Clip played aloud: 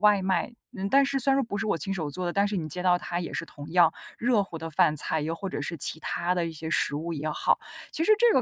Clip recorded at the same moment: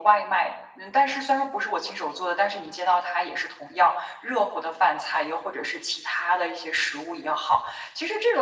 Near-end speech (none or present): none